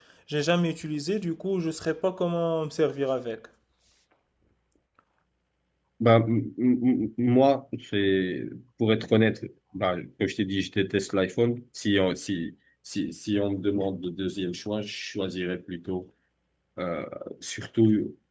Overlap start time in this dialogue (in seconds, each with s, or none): none